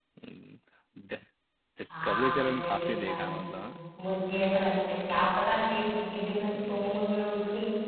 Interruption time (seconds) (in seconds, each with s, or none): 1.9 s